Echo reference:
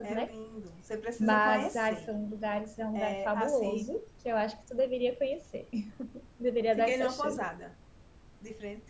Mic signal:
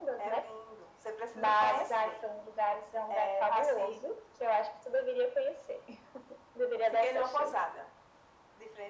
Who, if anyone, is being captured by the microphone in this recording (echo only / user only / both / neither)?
echo only